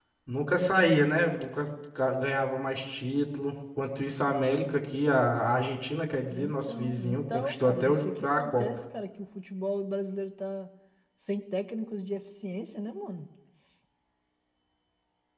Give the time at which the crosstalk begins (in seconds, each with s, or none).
6.3 s